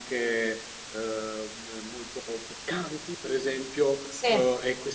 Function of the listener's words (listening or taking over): listening